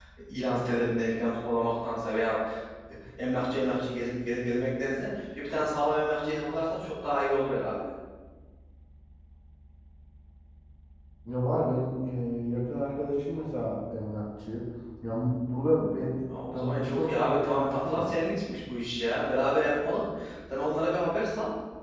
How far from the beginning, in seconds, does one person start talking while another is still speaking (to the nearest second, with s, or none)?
17 s